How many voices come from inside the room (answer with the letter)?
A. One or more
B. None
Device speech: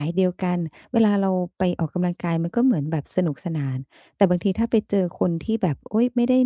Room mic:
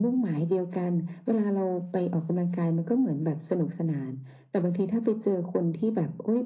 B